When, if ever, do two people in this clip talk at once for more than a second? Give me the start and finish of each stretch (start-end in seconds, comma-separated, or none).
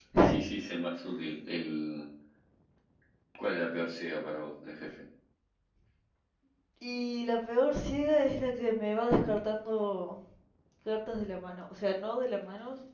none